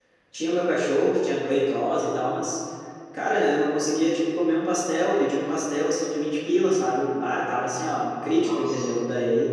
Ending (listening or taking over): listening